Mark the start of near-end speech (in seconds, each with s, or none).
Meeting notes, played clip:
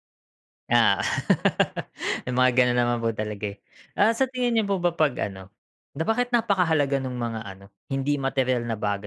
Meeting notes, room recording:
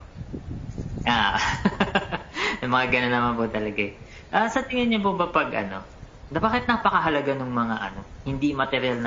none